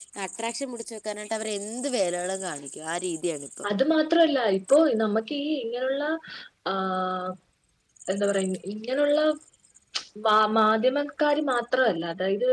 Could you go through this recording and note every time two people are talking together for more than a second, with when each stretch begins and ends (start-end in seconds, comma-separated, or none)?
none